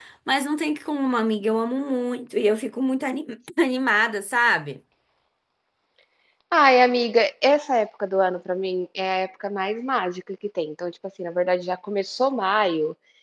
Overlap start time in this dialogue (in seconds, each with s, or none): none